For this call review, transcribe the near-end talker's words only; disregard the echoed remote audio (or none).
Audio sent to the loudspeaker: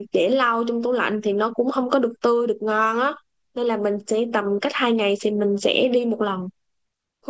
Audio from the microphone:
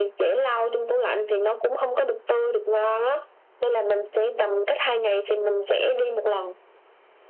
none